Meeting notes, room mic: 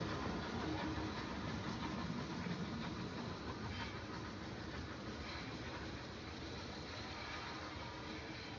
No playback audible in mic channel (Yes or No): Yes